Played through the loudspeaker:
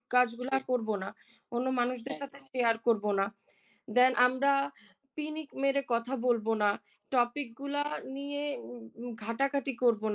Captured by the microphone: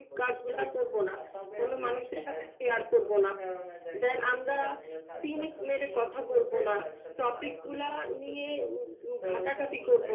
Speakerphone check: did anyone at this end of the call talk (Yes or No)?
Yes